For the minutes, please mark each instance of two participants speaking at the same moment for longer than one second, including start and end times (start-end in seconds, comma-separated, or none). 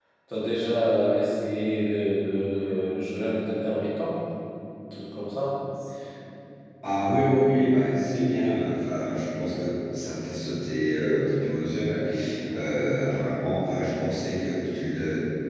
none